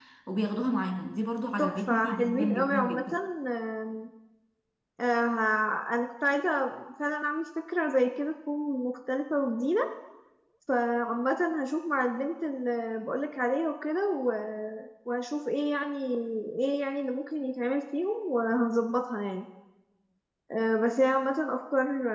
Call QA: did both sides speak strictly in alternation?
No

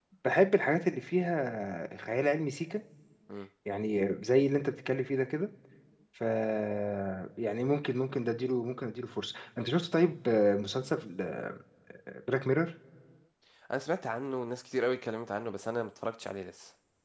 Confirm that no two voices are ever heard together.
Yes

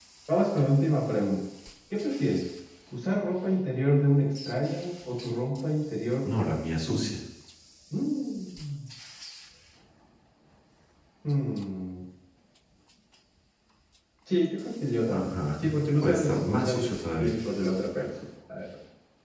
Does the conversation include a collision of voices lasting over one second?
Yes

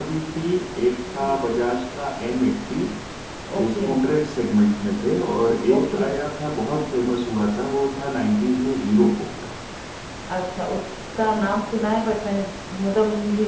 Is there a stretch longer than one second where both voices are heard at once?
No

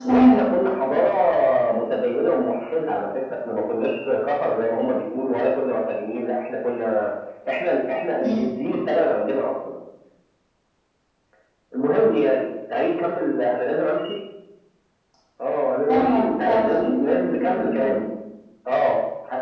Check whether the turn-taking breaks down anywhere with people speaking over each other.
Yes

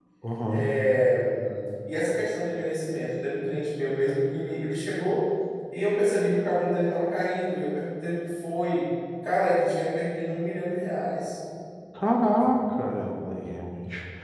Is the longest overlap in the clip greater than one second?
No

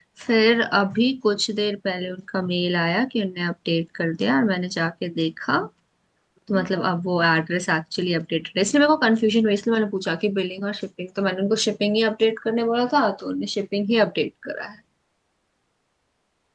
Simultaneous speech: No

